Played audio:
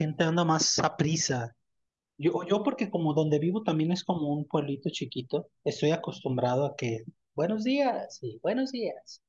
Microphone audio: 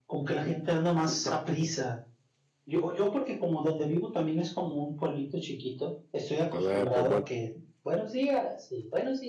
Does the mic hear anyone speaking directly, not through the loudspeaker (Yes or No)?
Yes